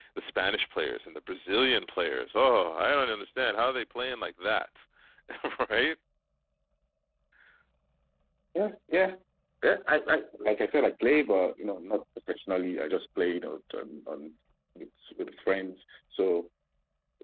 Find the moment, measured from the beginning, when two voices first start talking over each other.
none

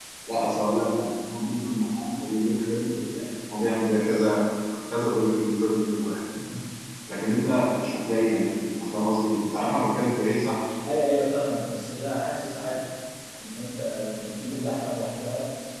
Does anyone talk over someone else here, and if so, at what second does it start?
none

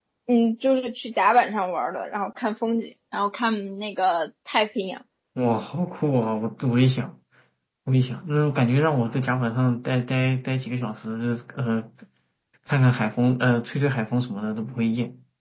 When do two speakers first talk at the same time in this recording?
none

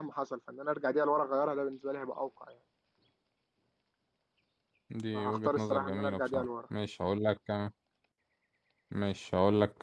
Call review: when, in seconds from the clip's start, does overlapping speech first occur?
5.1 s

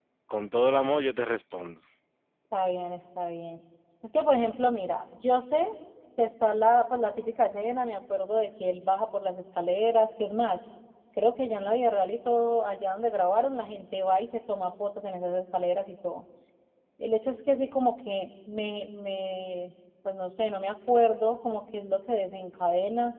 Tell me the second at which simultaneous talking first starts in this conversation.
none

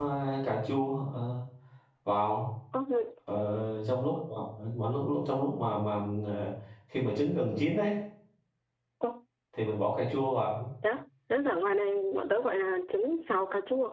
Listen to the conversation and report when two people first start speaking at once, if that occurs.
none

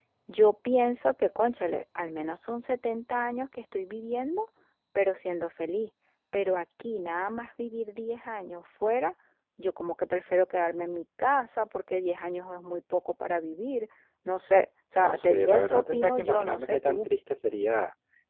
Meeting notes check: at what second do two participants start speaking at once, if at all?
15.0 s

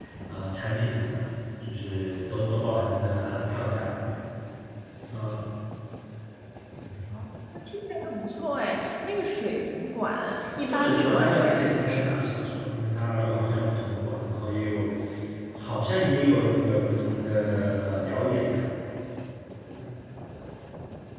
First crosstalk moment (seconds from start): 10.6 s

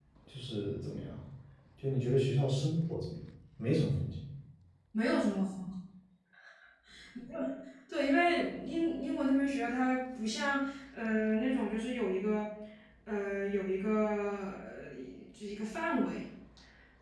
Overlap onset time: none

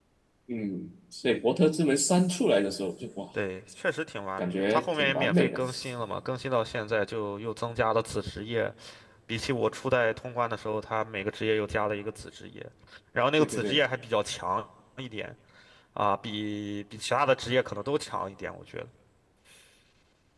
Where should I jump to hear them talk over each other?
4.4 s

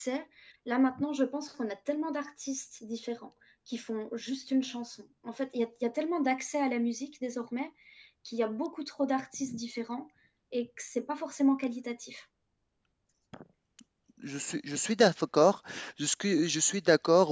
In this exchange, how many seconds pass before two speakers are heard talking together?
none

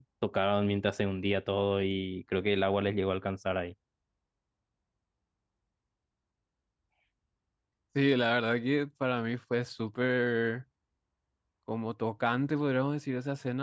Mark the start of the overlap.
none

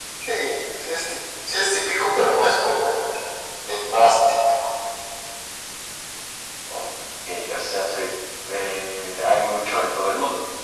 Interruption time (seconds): none

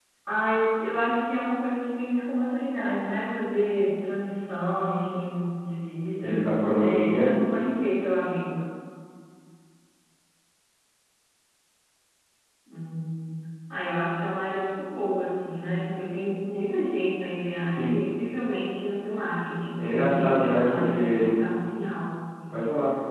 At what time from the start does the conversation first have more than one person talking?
6.2 s

